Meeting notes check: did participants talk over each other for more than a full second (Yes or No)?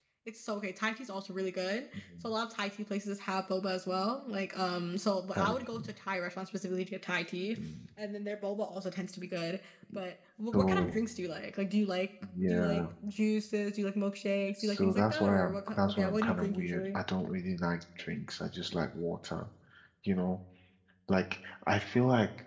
Yes